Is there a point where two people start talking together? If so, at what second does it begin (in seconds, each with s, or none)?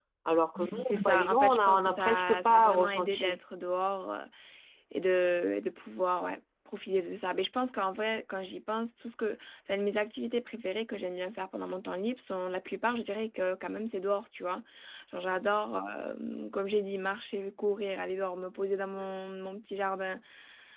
0.8 s